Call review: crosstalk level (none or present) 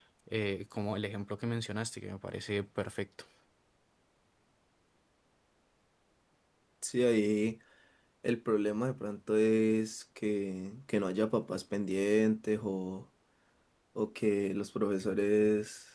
none